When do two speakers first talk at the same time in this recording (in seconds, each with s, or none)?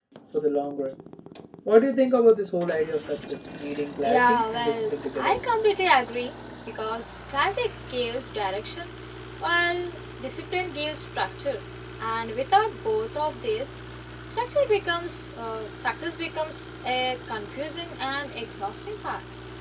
4.0 s